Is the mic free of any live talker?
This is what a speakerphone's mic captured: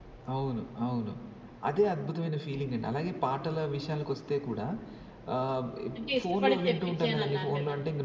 No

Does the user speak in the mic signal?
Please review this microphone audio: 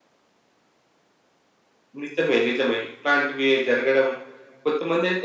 No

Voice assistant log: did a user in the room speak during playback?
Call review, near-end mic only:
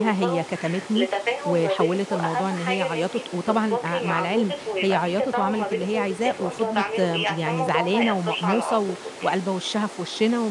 Yes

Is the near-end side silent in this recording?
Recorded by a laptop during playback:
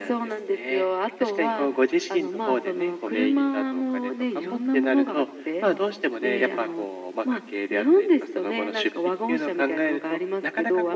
Yes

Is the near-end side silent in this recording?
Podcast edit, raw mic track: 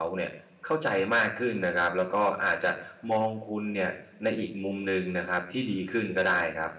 No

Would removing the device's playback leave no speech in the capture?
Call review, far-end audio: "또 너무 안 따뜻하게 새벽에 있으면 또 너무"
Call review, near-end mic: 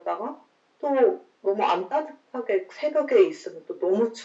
Yes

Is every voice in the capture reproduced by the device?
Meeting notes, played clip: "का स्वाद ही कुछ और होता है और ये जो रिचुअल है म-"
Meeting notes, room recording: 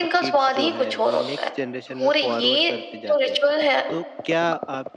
No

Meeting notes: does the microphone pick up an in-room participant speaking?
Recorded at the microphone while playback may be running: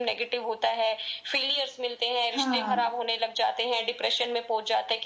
Yes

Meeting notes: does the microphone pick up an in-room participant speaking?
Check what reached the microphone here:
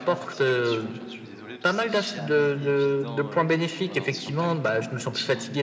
Yes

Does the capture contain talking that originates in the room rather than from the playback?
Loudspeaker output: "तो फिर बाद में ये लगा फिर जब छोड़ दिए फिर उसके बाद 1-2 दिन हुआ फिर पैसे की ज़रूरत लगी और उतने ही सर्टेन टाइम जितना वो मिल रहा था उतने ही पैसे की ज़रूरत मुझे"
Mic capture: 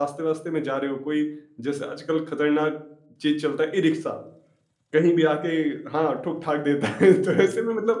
Yes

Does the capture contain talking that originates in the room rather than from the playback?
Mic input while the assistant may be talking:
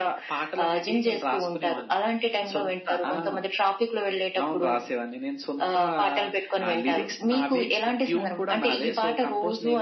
No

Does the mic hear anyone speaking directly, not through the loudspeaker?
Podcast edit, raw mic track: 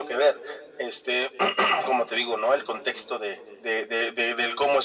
No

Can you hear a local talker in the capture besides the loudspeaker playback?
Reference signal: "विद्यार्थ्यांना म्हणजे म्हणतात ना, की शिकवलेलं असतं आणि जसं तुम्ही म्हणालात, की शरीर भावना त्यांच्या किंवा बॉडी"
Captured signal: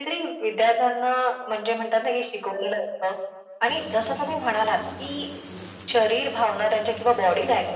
No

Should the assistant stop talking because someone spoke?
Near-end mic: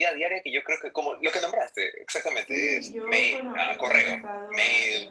Yes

